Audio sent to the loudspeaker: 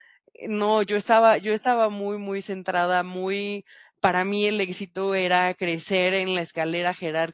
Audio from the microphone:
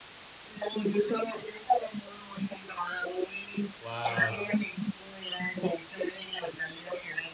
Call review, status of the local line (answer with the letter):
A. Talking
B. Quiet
A